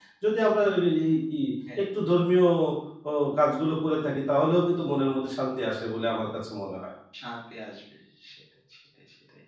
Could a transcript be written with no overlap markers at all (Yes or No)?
Yes